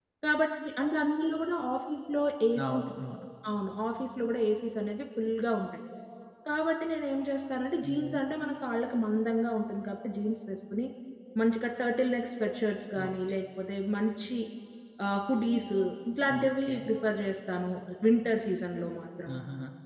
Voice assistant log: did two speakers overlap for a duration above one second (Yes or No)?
No